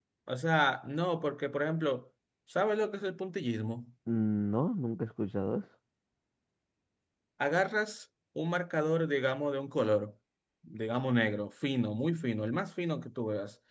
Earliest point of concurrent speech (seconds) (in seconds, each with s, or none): none